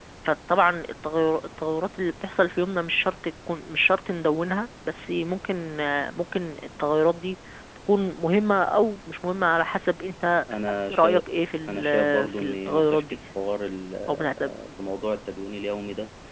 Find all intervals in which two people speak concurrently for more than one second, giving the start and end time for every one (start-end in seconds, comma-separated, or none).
11.7-13.2